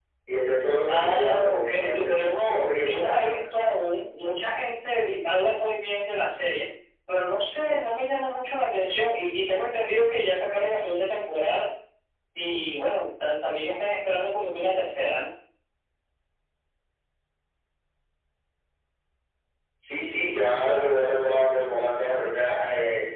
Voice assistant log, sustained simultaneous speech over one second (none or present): present